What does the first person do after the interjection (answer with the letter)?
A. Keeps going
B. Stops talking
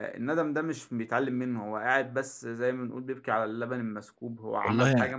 A